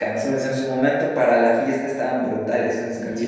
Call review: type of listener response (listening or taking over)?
taking over